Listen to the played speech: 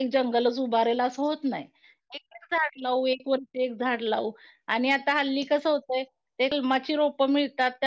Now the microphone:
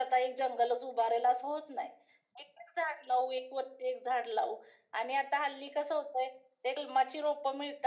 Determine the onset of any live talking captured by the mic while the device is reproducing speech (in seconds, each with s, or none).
none